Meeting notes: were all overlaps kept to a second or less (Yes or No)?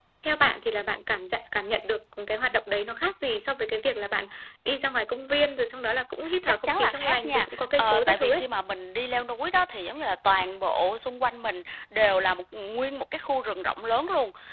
No